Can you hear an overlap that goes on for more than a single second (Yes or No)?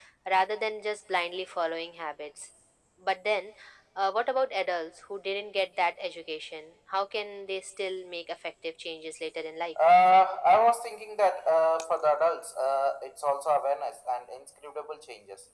No